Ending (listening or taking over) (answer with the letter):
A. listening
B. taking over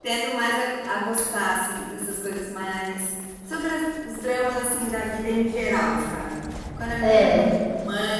A